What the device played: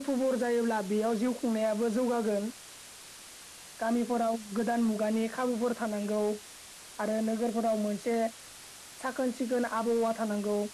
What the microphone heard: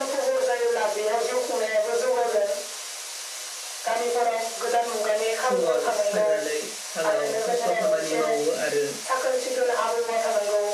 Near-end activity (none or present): present